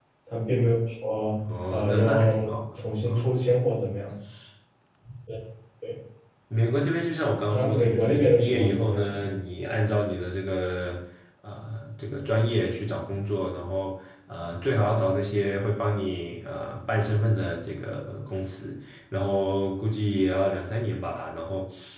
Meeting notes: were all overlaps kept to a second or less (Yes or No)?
No